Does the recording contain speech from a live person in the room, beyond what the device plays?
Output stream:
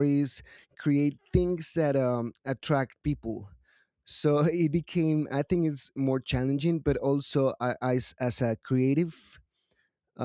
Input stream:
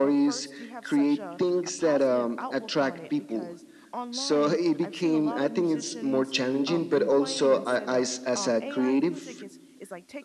Yes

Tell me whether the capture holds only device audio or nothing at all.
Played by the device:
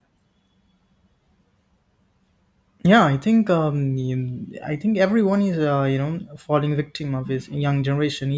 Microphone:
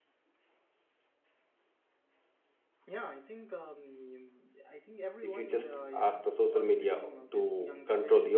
No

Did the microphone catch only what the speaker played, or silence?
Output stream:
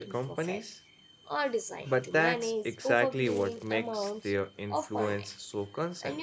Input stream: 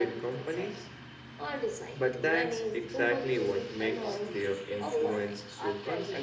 No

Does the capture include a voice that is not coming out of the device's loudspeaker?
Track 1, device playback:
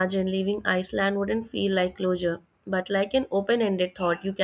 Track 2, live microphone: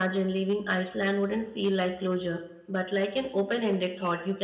No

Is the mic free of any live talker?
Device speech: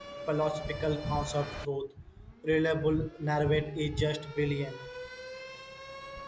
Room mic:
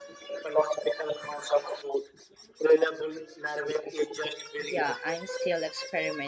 No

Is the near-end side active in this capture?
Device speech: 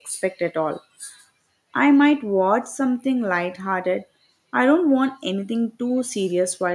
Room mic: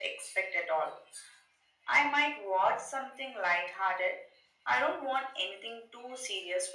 No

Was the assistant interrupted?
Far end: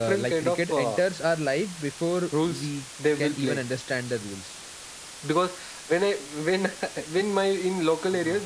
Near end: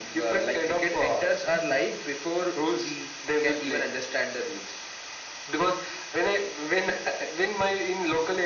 No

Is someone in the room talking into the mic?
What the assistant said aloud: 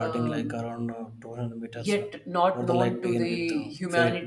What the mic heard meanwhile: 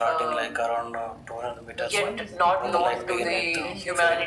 Yes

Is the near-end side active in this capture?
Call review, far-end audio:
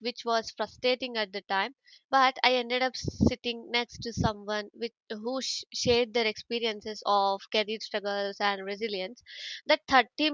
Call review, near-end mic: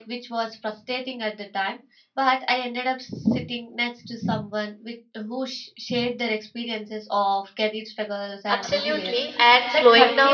Yes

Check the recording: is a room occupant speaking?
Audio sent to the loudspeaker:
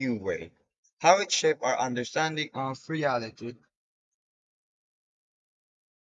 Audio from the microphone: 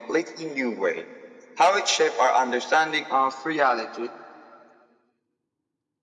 No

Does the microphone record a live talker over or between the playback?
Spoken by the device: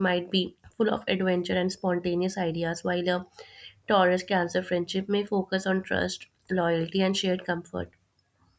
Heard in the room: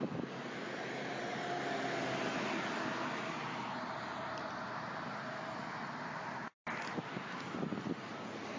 No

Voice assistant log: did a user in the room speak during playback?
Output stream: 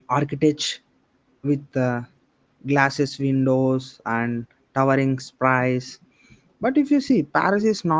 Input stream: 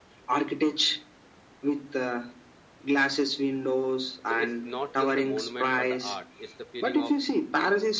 Yes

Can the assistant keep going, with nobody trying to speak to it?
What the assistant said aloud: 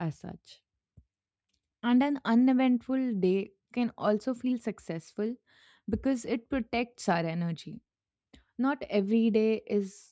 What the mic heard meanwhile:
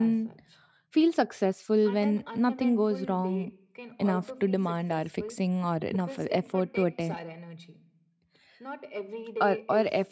No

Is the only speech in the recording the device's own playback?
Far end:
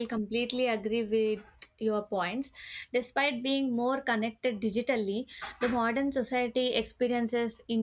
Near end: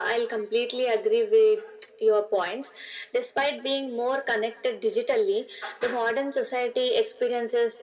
Yes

